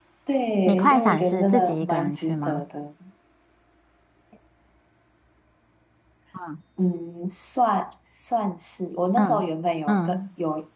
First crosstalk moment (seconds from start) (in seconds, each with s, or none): 0.7 s